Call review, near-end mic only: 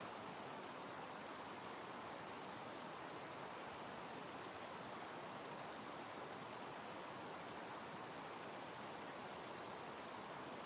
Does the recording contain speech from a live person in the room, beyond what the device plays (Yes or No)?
No